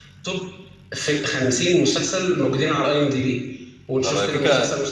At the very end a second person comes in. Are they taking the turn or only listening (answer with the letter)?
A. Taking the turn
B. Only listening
B